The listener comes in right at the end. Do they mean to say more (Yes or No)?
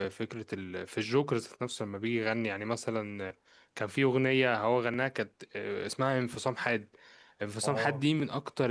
No